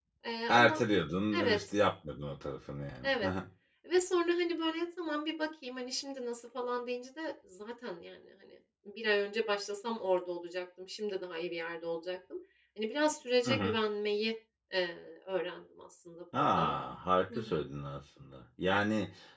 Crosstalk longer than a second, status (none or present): none